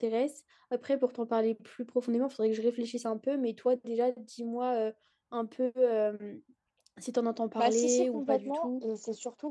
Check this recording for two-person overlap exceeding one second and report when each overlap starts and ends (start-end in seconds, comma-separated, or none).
7.6-8.8